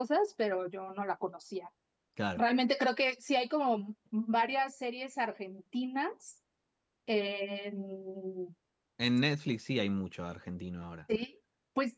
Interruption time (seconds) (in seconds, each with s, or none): none